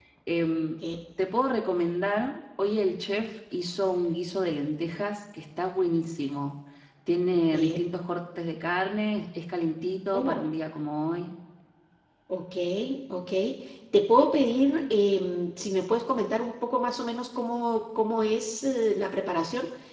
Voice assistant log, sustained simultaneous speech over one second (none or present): none